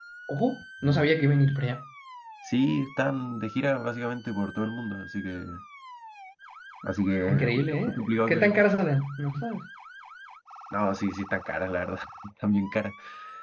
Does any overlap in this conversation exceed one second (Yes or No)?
Yes